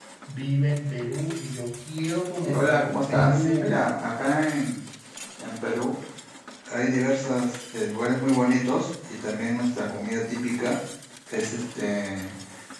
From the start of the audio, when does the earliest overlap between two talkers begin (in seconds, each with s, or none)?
2.5 s